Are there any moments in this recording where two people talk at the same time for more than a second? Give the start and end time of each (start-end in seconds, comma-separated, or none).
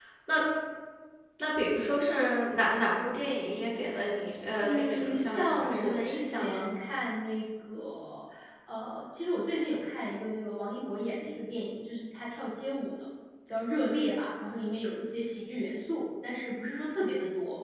4.6-6.7